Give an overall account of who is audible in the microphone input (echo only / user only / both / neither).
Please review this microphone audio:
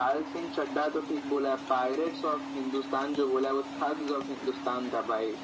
echo only